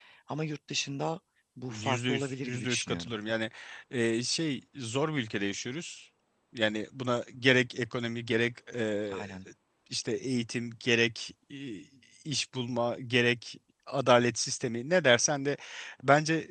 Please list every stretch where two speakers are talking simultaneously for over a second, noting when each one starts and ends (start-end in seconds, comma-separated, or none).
1.7-3.1